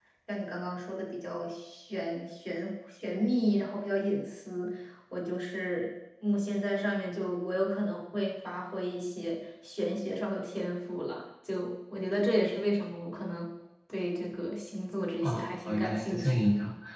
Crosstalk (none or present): present